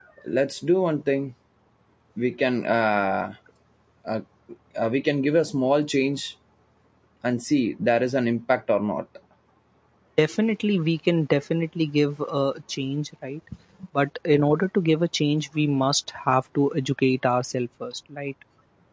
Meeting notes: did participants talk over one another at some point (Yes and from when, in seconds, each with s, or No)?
No